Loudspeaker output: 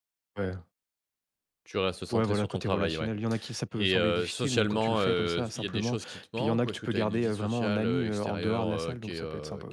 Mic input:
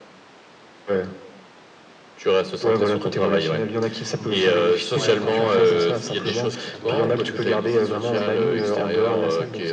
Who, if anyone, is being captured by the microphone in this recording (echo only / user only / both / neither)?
both